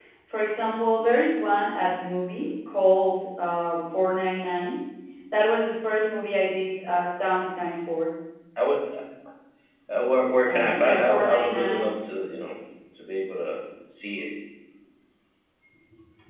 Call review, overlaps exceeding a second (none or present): present